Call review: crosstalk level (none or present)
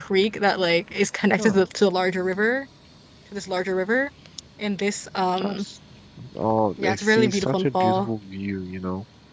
present